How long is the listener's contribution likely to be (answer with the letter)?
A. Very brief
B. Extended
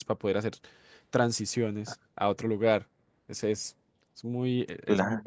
A